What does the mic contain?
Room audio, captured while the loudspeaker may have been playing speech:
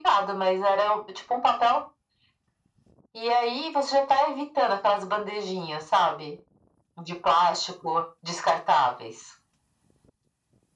echo only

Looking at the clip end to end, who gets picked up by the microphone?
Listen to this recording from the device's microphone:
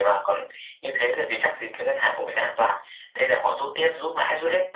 echo only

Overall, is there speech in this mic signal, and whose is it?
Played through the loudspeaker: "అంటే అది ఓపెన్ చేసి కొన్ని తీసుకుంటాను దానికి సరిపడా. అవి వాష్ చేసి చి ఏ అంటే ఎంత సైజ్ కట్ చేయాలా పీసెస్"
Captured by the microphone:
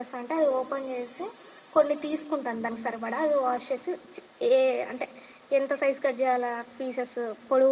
echo only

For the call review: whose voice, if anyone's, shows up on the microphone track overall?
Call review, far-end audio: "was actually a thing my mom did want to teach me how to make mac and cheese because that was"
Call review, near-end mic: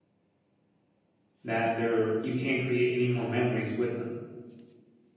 user only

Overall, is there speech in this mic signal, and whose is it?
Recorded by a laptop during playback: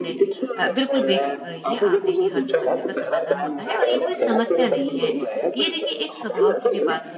both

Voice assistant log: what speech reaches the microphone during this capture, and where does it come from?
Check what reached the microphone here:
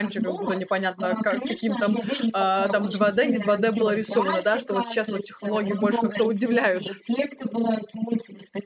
both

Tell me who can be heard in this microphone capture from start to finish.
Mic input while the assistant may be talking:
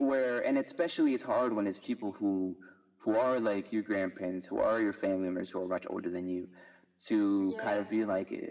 both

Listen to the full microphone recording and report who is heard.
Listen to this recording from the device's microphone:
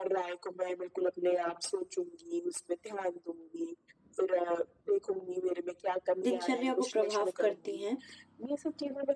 both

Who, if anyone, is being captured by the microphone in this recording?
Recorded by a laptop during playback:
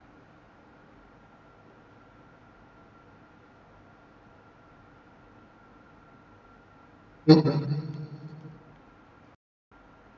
user only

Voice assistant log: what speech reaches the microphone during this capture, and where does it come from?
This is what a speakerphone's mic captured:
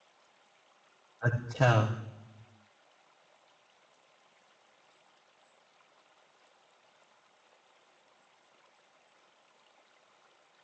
user only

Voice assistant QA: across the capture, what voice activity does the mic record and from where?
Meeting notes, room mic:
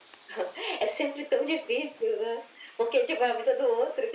echo only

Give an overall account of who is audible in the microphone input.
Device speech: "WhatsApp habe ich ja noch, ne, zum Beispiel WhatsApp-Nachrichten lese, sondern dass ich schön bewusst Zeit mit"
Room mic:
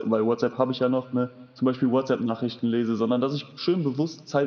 echo only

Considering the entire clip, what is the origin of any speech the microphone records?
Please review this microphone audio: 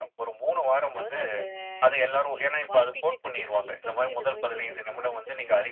both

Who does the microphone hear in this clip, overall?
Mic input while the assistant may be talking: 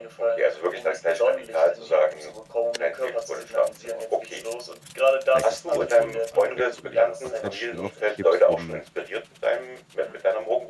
both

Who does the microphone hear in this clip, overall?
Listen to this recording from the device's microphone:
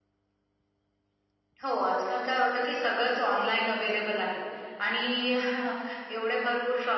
echo only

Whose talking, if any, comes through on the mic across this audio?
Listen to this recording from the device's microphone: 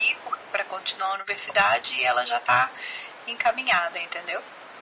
echo only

